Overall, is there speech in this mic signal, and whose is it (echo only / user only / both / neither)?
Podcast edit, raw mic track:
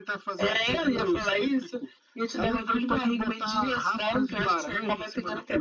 echo only